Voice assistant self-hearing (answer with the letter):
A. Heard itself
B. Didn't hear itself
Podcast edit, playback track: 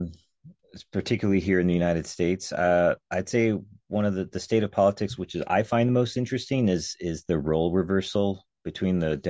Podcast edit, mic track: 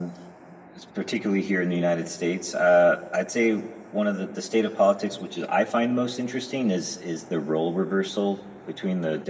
A